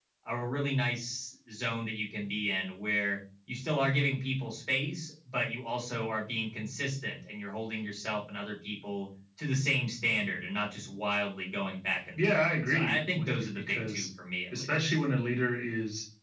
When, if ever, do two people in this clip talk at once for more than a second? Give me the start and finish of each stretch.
12.2-14.1

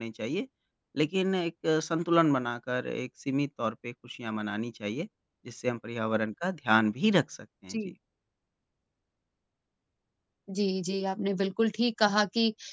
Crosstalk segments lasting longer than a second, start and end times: none

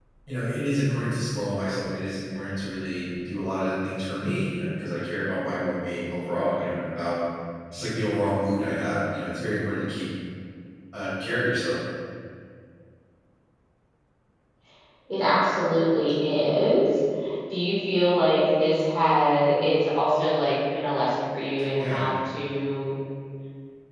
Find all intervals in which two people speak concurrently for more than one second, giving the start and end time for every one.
none

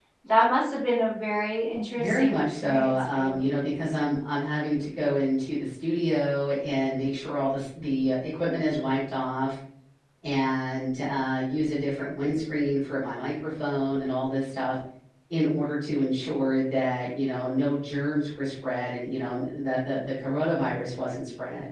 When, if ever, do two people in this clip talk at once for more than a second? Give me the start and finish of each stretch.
2.0-3.4

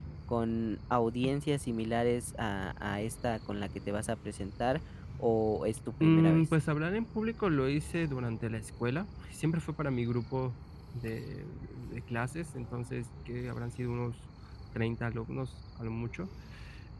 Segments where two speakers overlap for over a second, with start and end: none

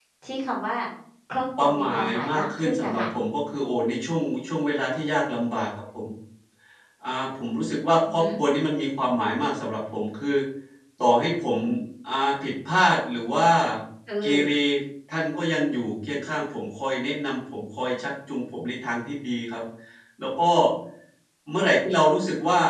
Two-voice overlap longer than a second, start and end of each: 1.6-3.0

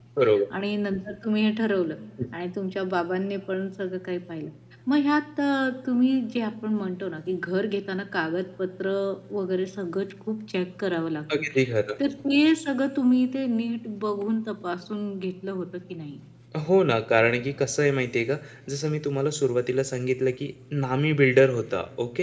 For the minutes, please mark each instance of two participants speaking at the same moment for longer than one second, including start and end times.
none

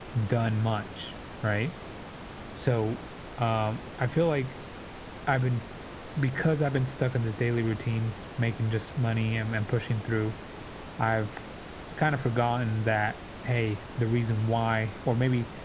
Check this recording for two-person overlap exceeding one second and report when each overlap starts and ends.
none

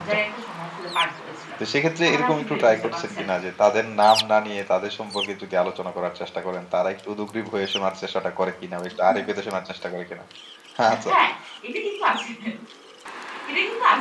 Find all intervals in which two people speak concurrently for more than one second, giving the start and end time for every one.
2.1-3.4

